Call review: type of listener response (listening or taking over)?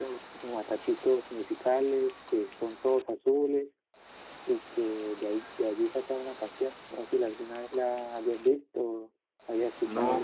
taking over